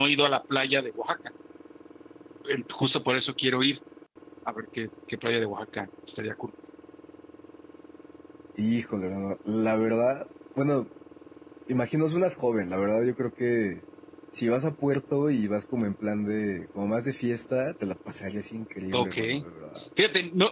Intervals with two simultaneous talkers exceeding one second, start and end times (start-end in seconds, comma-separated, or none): none